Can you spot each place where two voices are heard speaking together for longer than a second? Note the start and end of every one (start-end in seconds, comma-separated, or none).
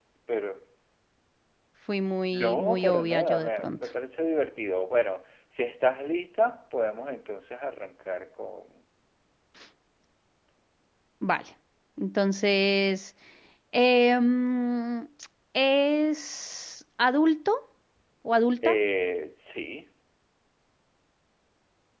2.3-3.8